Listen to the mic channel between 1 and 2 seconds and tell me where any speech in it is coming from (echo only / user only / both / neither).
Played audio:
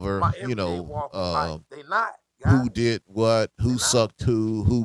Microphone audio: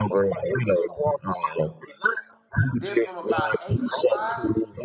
echo only